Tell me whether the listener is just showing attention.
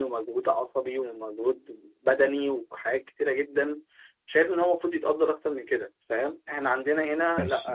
Yes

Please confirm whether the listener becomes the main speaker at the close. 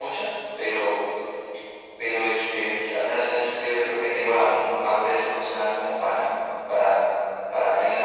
Yes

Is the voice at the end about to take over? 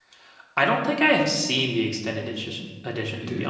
No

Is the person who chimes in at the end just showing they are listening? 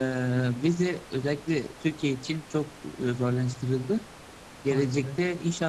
Yes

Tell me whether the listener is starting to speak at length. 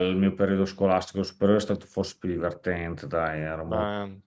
No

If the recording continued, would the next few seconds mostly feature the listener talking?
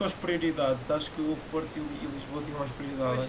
Yes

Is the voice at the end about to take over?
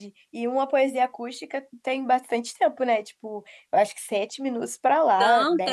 Yes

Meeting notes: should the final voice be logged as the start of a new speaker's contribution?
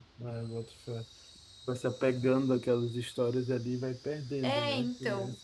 Yes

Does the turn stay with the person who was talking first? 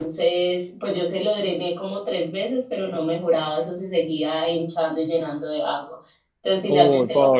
Yes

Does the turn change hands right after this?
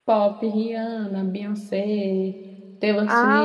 No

